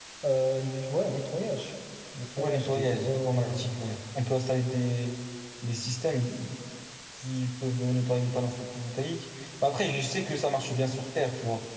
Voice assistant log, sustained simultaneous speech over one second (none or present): present